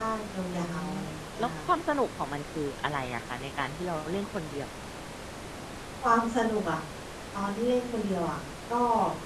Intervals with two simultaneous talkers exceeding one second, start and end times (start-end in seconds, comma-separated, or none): none